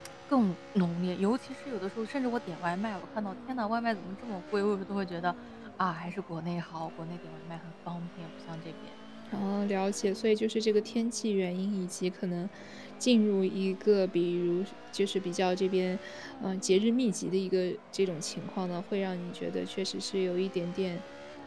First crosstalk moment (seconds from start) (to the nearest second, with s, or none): none